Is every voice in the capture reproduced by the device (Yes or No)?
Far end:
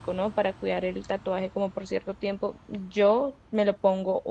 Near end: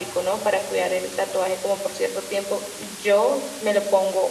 Yes